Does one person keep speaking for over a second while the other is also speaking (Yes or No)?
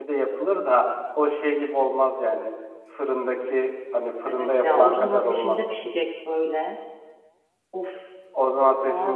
Yes